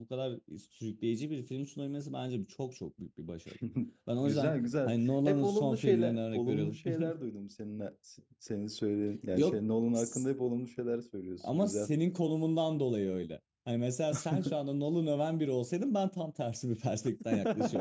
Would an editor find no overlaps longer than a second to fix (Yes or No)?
No